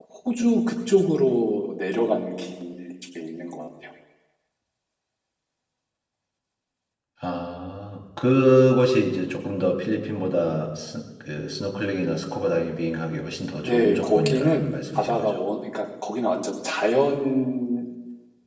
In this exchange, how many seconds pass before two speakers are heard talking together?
13.6 s

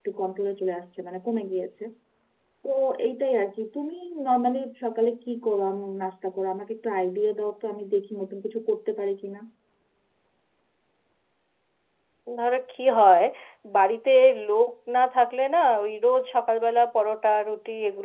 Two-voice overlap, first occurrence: none

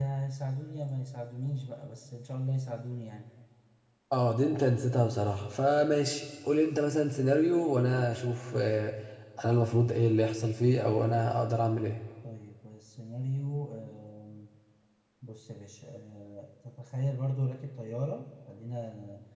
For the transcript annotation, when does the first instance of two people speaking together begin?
none

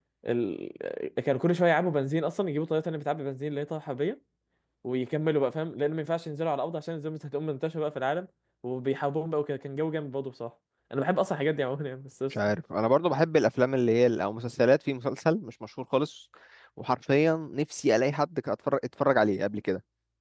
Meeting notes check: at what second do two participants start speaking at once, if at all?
none

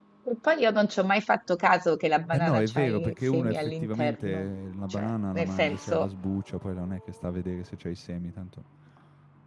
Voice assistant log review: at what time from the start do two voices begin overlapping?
2.3 s

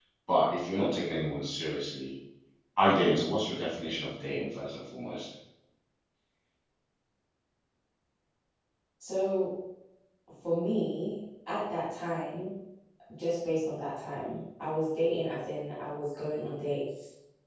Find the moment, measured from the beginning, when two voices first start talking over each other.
none

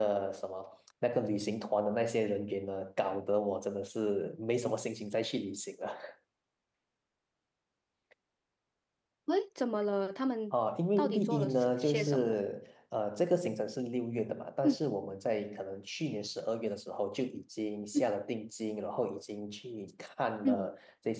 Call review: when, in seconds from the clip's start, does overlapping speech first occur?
11.0 s

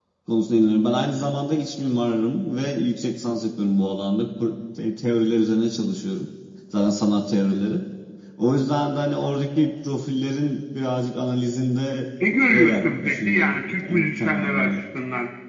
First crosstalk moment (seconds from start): 12.5 s

